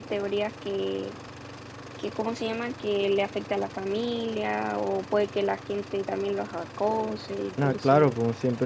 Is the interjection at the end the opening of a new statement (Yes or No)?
Yes